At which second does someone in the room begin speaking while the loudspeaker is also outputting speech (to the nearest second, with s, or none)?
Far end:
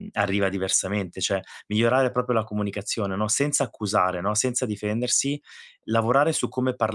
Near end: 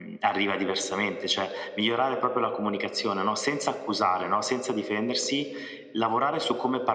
none